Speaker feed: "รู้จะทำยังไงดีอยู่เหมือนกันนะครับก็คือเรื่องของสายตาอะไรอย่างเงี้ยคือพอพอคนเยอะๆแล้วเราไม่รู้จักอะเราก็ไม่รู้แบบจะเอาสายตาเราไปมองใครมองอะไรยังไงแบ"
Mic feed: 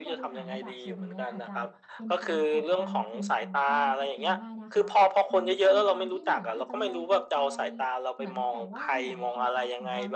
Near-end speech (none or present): present